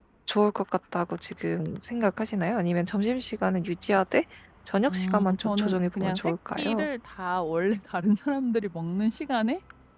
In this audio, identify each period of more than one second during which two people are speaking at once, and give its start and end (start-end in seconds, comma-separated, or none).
4.9-6.9